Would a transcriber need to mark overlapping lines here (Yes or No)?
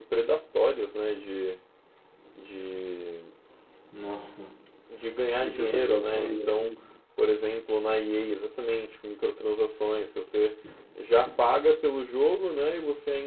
Yes